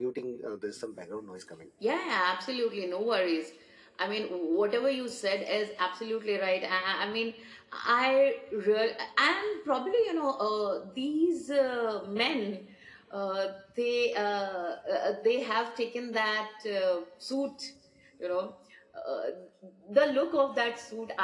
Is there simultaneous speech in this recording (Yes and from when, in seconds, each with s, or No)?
No